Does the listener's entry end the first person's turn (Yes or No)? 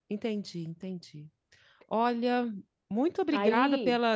No